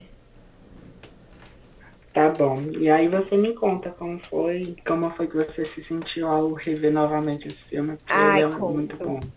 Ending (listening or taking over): taking over